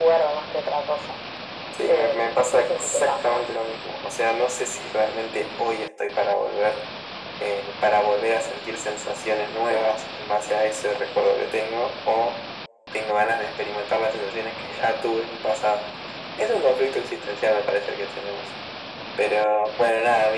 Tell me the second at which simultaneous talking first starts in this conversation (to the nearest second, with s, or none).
2 s